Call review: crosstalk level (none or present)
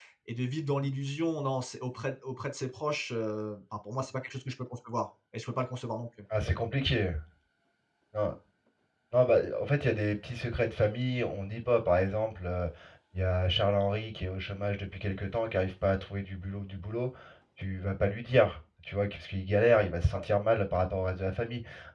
none